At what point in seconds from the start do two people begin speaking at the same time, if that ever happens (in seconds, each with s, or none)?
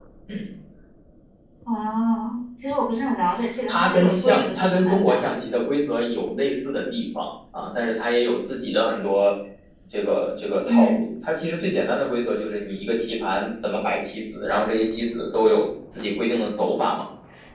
3.7 s